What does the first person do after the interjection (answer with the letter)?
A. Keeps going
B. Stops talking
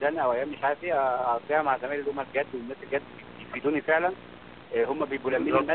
A